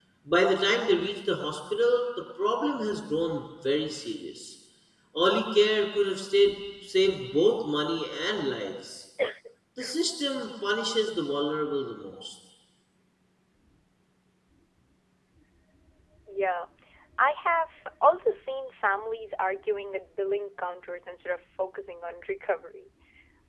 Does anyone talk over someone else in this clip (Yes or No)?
No